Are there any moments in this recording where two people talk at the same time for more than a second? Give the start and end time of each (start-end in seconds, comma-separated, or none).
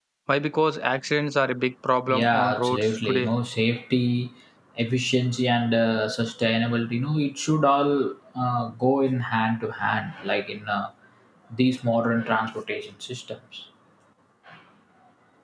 2.1-3.3